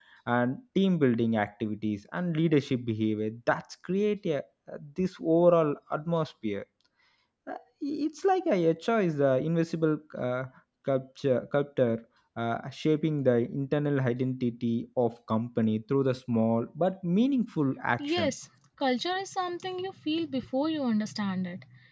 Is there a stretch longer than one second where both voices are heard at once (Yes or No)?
No